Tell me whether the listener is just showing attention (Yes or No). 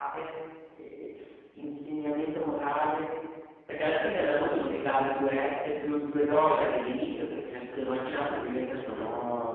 No